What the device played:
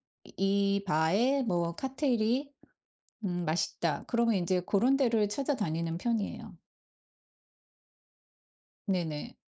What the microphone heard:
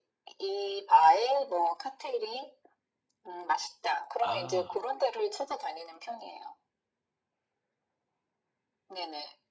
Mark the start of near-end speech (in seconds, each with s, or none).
4.2 s